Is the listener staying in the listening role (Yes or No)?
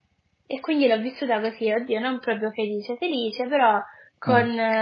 Yes